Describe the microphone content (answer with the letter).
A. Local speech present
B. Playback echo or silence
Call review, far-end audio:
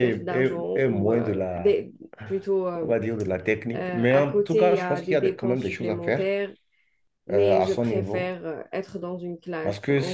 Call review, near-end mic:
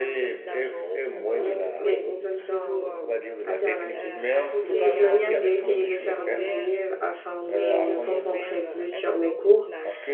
A